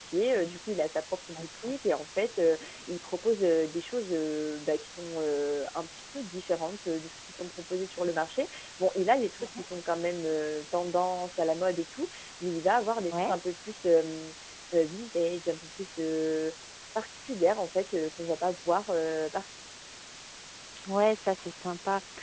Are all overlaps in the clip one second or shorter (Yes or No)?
Yes